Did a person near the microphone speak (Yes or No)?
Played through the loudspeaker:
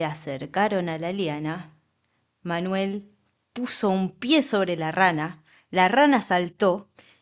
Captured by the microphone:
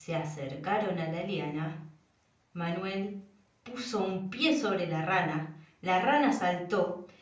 No